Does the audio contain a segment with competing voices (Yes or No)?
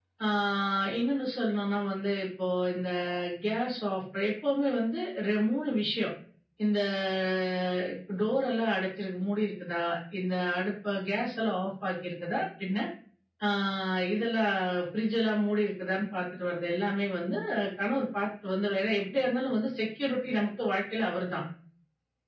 No